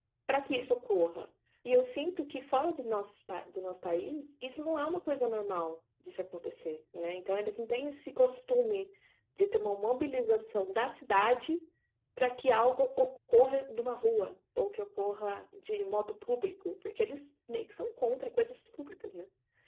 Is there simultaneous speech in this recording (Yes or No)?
No